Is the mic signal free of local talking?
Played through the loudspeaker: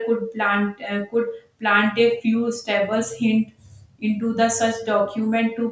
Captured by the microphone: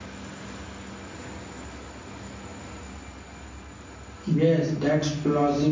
No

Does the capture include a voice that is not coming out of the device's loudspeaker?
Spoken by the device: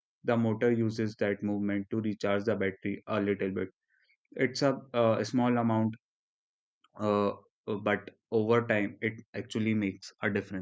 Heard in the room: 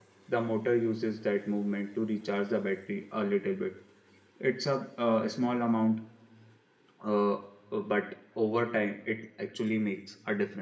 No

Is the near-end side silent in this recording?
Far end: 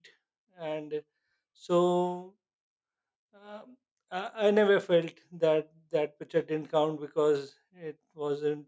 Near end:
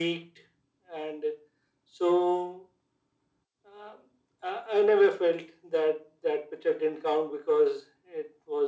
Yes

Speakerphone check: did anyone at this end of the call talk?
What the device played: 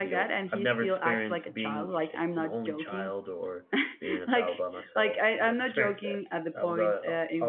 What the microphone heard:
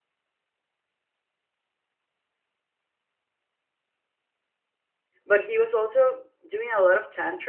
Yes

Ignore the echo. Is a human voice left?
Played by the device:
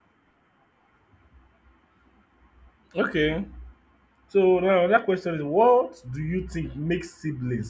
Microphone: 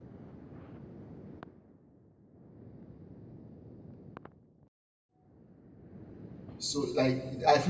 Yes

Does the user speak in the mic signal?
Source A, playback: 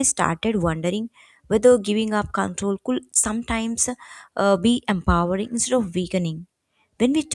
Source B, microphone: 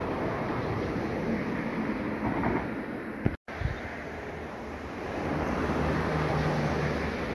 No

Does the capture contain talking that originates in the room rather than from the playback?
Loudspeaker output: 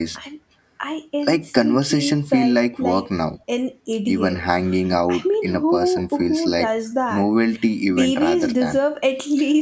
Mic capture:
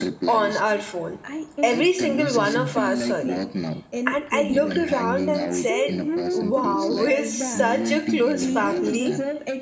Yes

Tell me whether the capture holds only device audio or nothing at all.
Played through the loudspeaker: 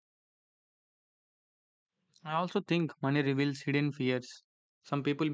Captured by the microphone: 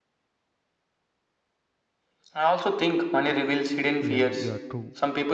No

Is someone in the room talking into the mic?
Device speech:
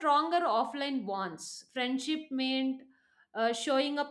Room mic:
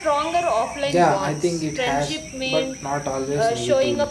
Yes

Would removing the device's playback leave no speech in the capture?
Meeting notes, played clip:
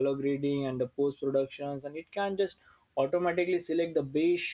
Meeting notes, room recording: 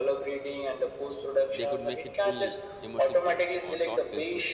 No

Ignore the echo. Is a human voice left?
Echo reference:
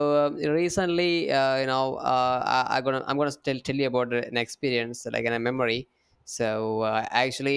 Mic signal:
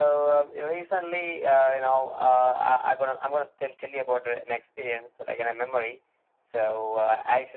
No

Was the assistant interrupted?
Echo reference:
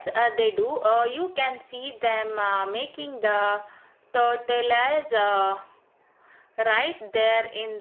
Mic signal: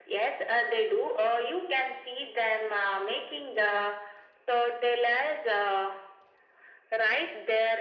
No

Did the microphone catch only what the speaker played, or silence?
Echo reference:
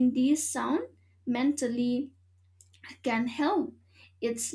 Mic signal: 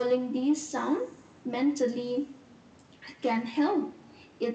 Yes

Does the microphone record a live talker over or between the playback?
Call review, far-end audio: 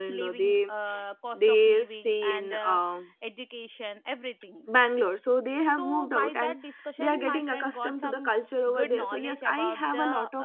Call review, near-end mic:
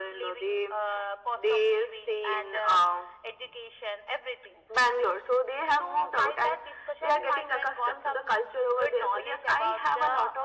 No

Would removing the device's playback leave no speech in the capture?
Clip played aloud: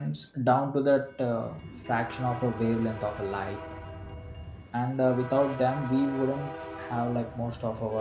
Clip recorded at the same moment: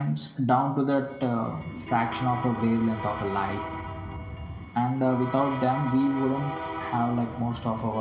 Yes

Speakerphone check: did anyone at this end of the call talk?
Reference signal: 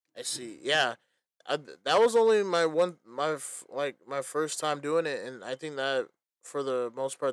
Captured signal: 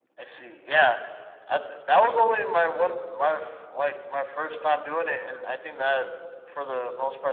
No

